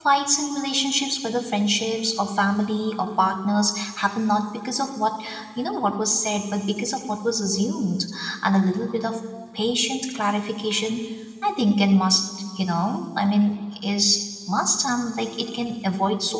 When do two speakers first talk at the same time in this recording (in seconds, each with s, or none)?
none